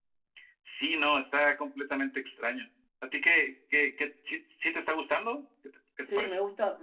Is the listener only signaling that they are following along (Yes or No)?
No